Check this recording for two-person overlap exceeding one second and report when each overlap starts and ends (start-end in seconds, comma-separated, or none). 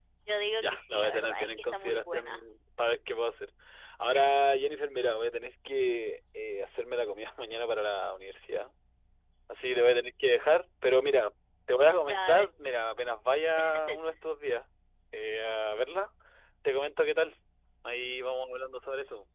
0.6-2.4